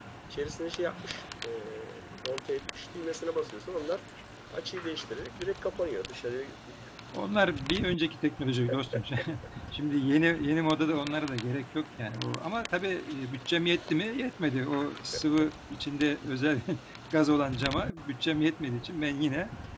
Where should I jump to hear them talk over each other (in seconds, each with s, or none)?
none